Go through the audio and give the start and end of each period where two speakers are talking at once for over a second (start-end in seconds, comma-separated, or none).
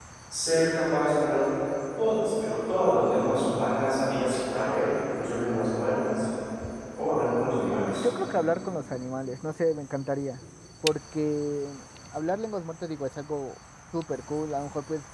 none